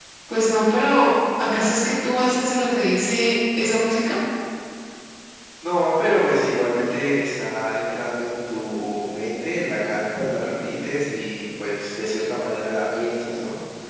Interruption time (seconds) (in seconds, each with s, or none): none